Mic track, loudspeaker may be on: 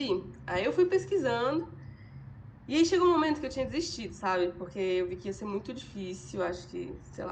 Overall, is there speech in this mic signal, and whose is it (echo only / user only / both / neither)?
echo only